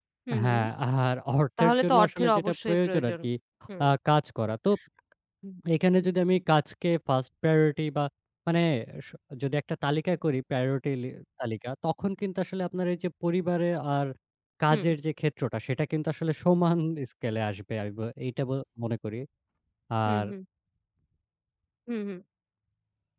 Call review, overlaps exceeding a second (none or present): present